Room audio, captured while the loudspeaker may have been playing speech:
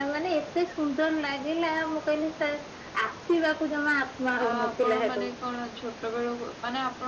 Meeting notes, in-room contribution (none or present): present